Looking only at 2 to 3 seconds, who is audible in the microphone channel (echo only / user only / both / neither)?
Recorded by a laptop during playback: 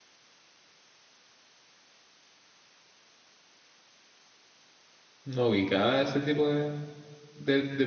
neither